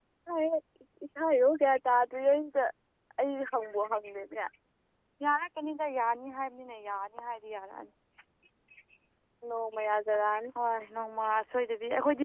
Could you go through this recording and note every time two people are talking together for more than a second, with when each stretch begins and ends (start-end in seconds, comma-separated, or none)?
none